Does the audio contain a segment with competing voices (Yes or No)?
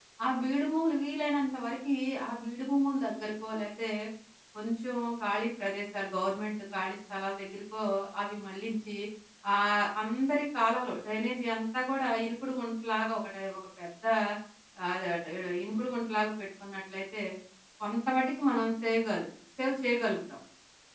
No